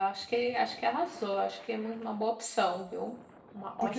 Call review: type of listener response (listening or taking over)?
taking over